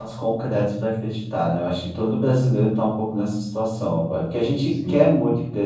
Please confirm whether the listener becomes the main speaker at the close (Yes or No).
No